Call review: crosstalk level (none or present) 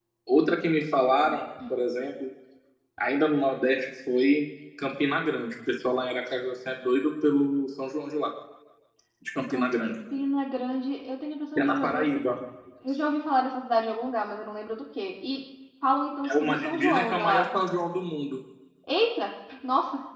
present